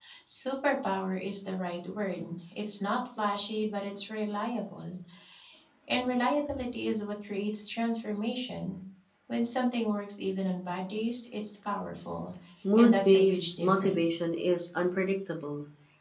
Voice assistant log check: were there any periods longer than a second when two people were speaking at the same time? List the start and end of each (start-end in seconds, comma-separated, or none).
12.8-14.2